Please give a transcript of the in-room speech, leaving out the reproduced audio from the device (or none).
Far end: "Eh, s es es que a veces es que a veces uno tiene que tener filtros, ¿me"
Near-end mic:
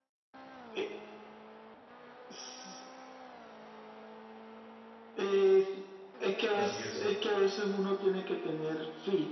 así es.